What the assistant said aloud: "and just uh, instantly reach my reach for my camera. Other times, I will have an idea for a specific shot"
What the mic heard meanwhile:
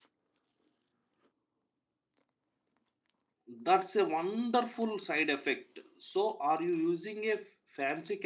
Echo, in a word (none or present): none